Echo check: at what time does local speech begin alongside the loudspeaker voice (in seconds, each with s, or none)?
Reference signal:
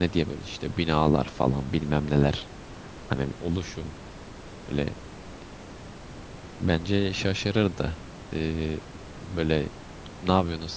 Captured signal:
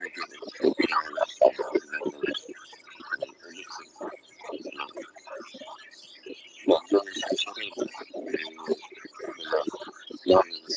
none